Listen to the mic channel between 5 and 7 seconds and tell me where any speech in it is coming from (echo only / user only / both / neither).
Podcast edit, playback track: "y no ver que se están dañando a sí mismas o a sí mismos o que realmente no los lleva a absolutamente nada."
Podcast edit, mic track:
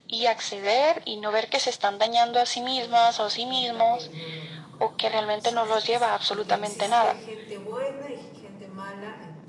both